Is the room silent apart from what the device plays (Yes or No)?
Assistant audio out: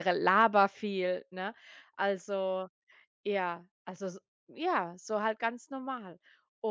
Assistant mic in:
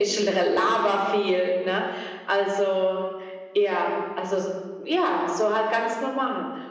Yes